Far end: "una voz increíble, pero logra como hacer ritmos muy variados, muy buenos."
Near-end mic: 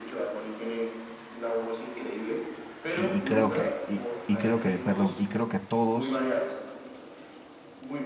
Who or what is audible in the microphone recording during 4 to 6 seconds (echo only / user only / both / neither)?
both